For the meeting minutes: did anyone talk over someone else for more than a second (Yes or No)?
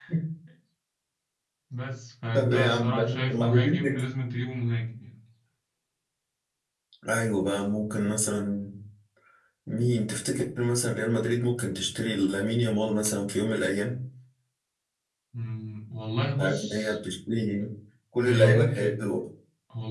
Yes